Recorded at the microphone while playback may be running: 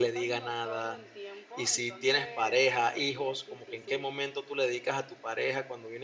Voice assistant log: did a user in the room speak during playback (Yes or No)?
Yes